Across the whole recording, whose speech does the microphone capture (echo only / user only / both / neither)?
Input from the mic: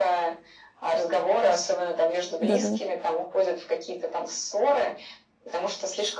both